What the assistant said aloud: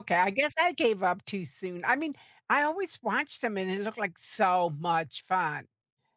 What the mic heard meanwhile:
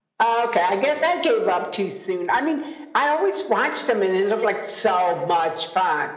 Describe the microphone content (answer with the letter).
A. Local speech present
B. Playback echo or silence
B